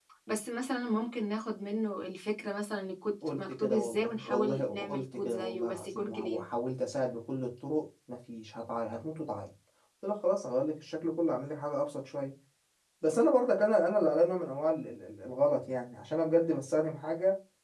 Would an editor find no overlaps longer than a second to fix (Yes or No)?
No